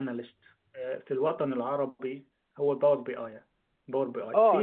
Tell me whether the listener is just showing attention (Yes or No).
No